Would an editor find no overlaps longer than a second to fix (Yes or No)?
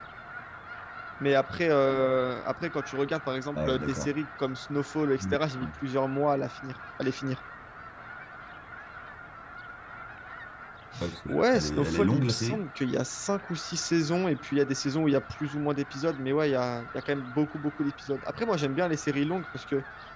No